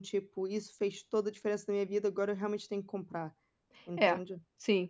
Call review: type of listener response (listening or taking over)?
taking over